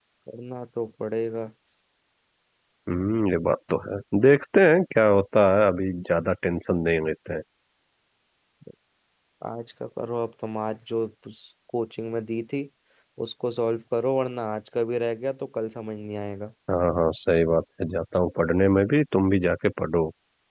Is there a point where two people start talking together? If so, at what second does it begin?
none

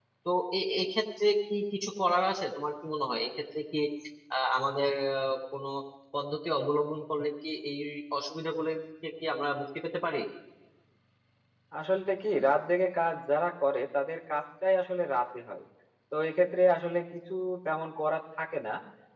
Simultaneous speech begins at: none

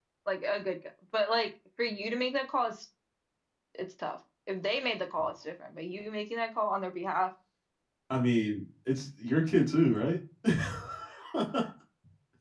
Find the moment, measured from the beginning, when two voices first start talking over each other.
none

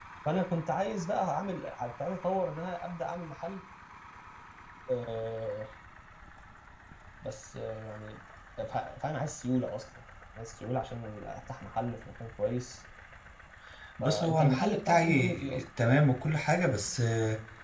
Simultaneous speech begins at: 14.0 s

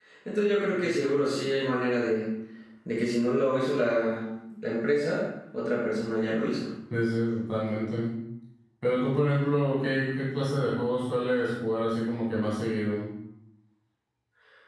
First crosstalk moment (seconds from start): none

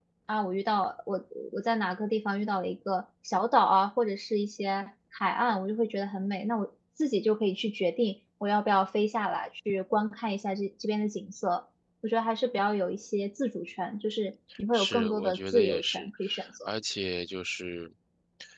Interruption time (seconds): 14.7 s

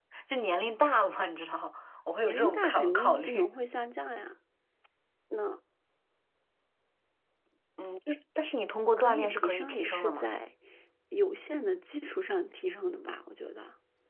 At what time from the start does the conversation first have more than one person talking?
2.2 s

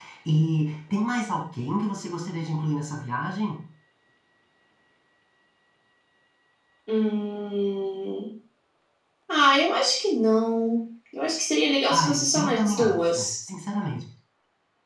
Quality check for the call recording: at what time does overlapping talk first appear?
11.9 s

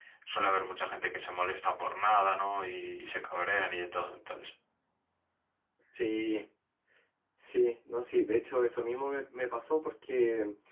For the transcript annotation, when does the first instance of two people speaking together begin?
none

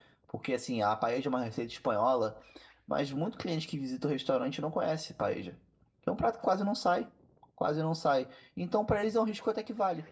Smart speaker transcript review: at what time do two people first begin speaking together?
none

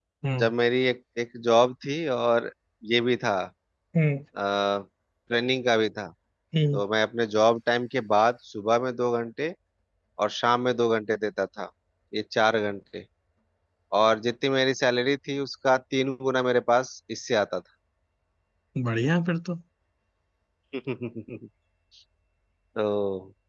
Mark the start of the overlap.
none

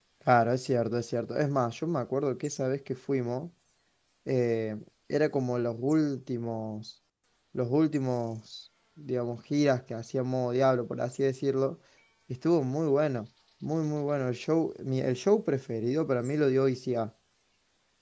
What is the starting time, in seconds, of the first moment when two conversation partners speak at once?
none

